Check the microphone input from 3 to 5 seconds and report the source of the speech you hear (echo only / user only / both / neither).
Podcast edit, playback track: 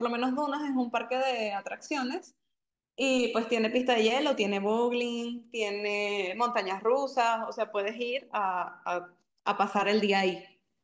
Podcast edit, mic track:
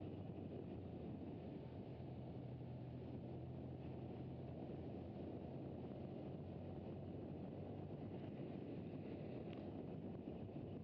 neither